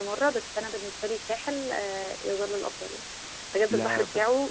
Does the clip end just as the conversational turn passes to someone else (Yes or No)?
No